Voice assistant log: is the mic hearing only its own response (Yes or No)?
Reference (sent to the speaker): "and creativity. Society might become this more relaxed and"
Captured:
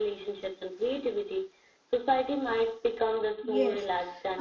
No